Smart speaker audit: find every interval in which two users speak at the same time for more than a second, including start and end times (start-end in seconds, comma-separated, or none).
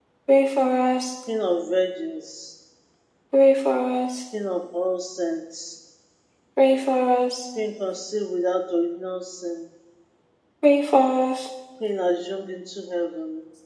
none